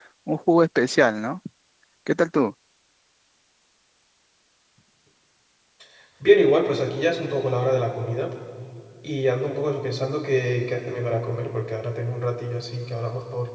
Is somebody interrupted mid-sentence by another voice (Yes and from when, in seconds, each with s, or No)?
No